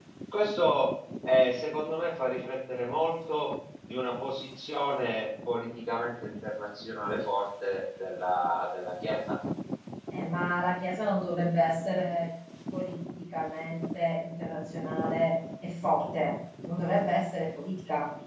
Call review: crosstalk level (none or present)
none